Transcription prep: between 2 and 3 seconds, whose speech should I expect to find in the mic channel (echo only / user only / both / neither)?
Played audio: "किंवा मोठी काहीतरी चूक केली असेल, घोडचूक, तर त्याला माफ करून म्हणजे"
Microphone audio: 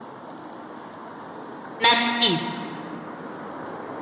user only